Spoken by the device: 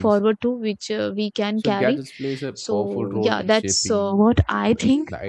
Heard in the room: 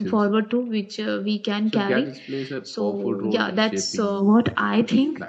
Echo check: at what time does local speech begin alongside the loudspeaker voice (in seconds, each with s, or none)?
none